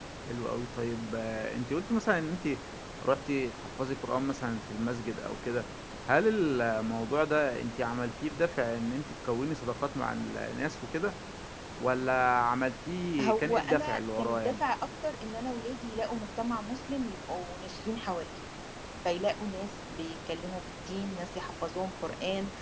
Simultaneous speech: Yes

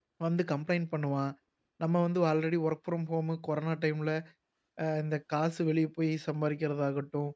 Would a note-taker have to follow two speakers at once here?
No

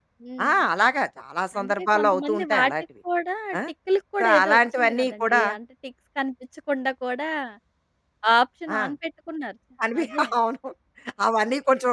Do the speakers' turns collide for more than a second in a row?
Yes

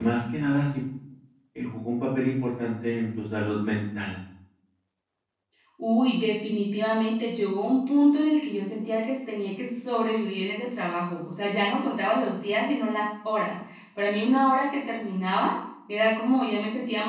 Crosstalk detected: No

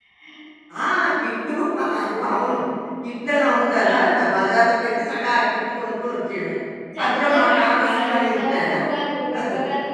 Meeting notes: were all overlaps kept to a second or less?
No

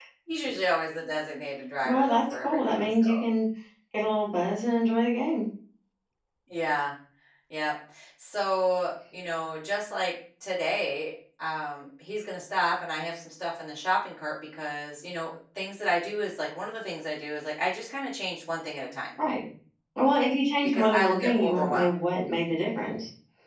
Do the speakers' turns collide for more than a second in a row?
Yes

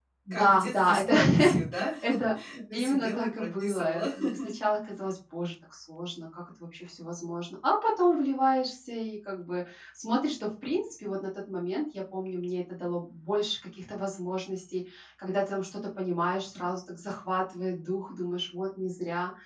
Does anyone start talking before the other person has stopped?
Yes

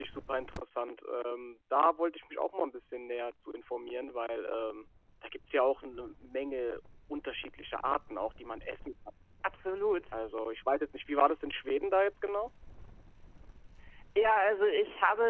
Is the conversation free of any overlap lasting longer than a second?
Yes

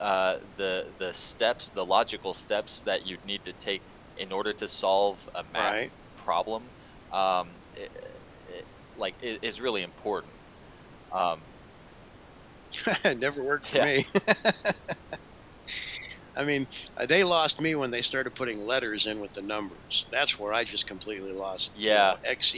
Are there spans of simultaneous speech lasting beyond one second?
No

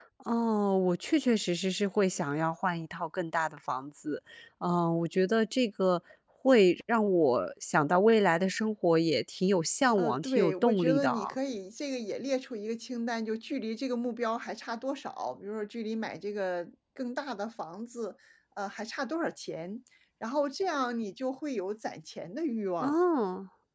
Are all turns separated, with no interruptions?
No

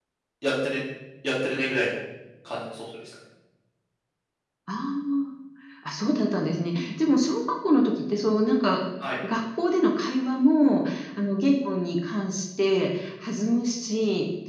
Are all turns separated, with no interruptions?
Yes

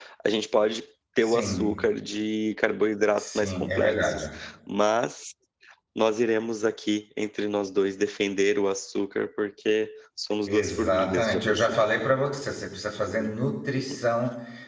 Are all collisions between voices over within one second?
No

